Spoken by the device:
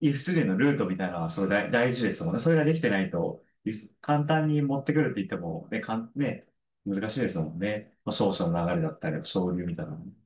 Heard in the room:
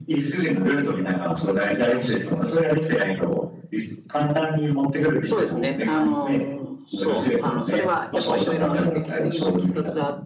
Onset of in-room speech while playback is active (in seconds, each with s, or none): 5.2 s